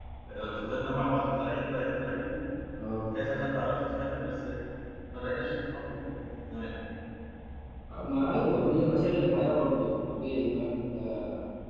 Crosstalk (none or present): none